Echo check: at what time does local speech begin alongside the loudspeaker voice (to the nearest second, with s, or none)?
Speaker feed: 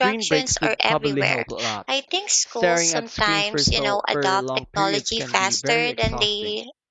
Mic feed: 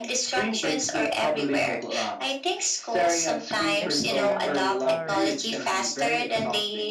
4 s